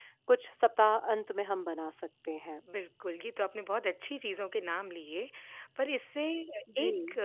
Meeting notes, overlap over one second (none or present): none